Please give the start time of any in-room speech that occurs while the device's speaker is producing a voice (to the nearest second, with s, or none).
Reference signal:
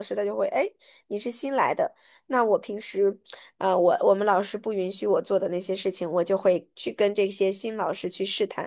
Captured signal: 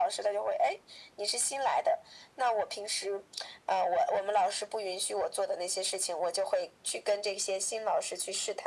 none